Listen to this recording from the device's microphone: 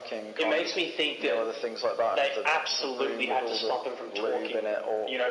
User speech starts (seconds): none

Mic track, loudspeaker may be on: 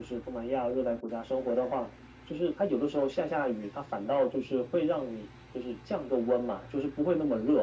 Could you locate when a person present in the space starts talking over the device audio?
none

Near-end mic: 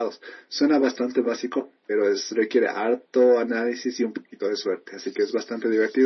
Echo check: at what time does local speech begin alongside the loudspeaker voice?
none

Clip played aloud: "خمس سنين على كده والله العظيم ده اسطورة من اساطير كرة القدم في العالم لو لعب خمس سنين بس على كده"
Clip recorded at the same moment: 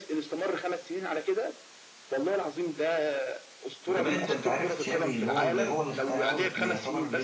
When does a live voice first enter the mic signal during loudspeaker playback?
3.8 s

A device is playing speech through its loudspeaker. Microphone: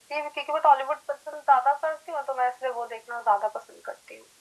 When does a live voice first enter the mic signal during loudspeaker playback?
none

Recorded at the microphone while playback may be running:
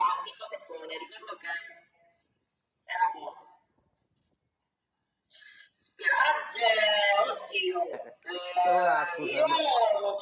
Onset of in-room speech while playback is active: 7.9 s

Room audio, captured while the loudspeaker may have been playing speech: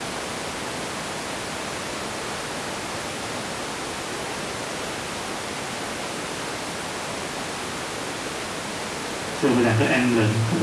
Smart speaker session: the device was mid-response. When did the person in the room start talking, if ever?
9.3 s

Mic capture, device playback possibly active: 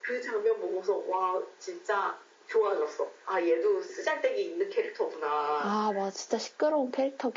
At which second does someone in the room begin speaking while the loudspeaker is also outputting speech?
5.6 s

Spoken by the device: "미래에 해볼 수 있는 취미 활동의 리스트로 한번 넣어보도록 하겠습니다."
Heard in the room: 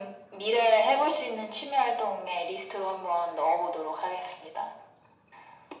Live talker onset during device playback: none

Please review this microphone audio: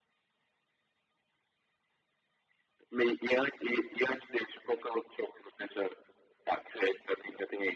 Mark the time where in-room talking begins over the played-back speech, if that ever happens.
none

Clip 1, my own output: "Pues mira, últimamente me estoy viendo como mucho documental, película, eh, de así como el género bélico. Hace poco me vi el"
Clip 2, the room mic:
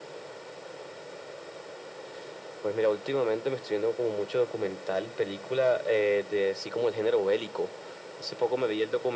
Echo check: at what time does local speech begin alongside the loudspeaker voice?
none

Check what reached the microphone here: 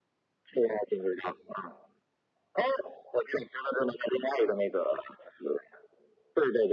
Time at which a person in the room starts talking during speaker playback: none

